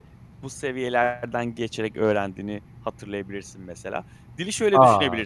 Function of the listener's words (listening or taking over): listening